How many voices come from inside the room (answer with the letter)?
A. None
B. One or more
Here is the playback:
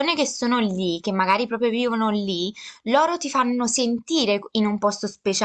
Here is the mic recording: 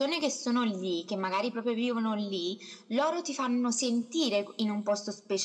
A